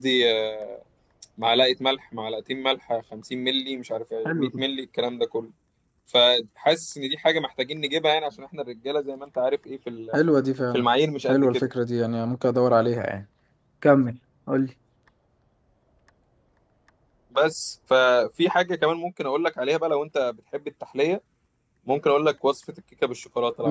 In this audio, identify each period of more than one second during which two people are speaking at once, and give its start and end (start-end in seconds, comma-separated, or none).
none